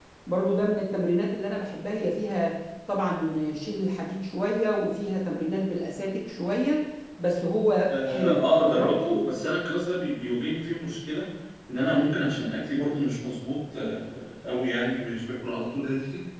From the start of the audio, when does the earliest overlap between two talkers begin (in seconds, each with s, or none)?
7.9 s